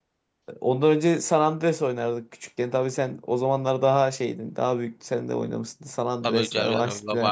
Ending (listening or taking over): taking over